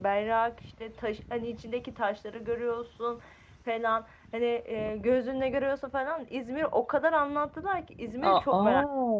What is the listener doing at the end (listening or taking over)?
taking over